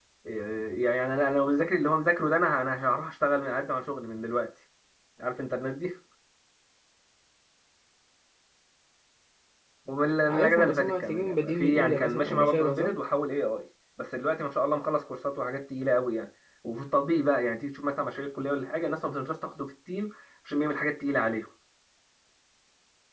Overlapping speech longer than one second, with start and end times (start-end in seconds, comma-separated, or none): 10.3-12.9